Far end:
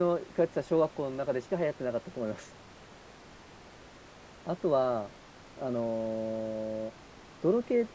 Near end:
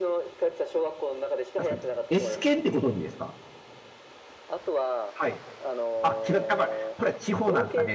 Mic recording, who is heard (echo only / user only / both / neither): both